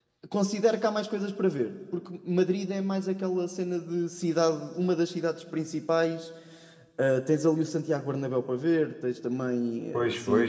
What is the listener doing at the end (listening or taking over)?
taking over